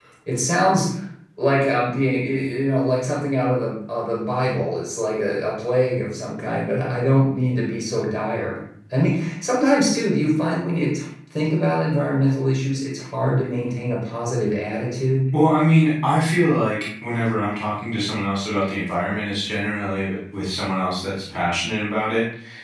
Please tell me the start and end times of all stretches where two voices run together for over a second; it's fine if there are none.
none

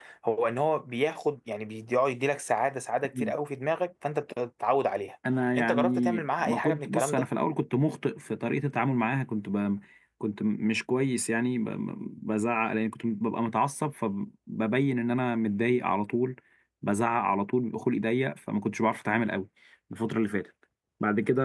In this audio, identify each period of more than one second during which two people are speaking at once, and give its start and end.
5.6-7.3

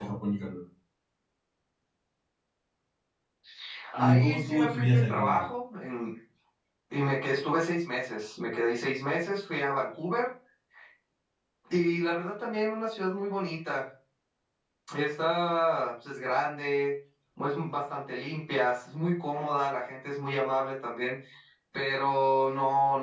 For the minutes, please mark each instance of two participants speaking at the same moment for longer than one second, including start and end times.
4.0-5.5

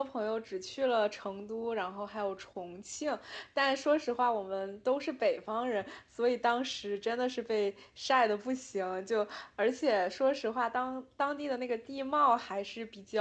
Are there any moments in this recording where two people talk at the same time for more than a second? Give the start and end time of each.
none

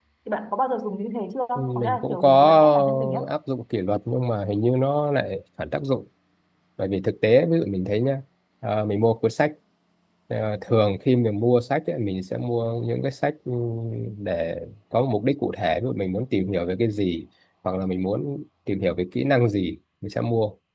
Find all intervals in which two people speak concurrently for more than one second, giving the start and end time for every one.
1.6-3.2

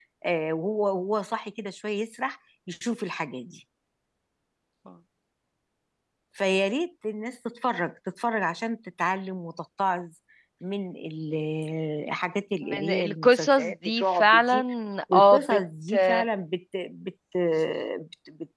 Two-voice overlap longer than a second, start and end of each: 12.8-14.6

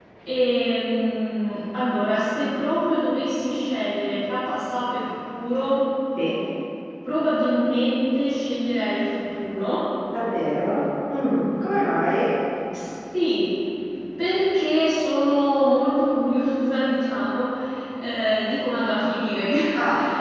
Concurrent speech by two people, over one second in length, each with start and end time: none

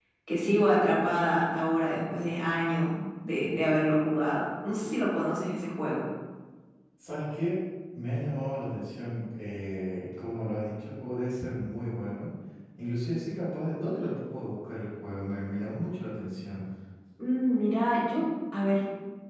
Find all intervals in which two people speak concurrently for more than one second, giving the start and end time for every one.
none

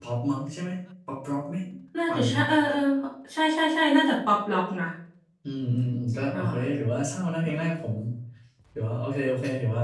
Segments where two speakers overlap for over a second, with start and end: none

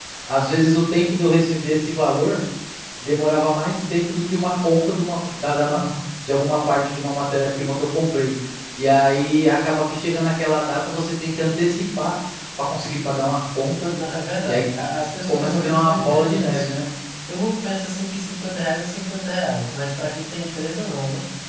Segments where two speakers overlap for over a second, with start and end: 15.3-16.7

